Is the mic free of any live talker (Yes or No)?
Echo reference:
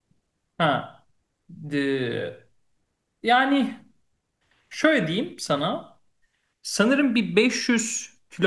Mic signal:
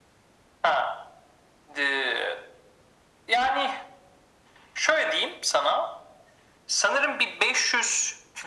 Yes